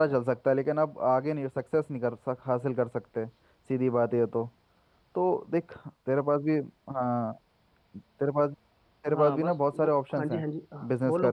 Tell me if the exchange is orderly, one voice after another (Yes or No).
No